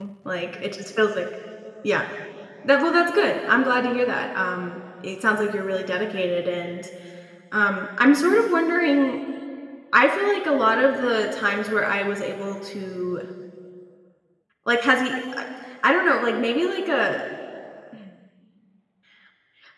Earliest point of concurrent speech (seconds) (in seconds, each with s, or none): none